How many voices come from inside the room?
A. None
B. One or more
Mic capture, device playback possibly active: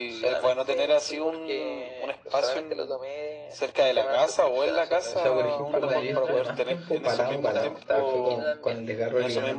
B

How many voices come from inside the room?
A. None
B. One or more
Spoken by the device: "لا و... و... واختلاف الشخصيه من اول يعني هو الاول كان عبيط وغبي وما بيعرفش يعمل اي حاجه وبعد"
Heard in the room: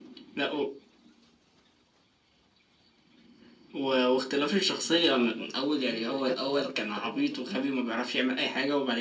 B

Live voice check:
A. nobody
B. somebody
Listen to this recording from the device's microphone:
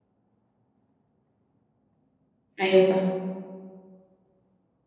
B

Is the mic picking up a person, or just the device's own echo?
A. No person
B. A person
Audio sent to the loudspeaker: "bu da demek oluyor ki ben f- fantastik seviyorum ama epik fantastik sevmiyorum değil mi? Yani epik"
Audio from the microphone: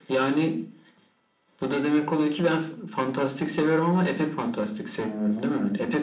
A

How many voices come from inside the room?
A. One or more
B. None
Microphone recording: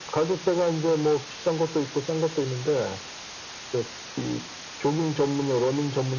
B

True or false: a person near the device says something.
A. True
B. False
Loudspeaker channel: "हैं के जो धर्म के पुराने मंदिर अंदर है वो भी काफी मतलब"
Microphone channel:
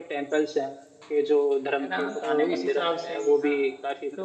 A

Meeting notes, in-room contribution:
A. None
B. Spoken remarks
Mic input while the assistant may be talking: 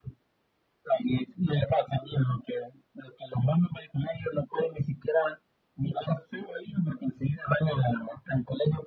A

